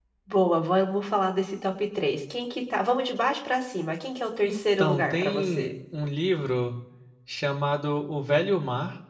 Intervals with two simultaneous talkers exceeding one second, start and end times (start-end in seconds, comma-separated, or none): 4.5-5.7